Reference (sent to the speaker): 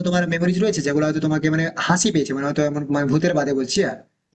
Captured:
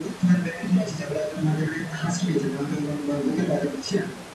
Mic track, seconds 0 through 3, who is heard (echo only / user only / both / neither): echo only